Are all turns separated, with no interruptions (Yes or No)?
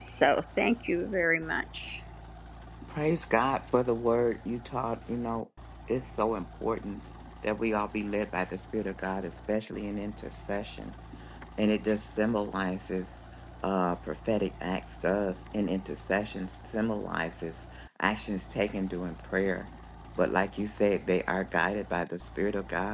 Yes